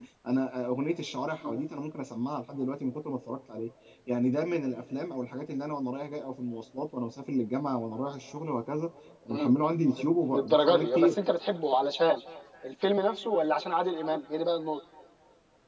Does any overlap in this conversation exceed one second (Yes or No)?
Yes